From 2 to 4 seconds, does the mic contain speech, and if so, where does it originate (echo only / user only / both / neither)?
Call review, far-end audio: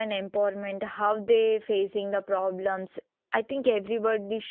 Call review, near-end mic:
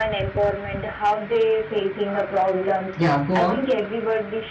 both